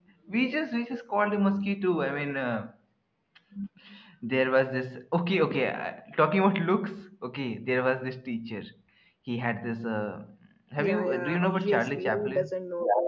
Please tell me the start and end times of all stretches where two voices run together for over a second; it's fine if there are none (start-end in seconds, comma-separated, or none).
10.8-12.5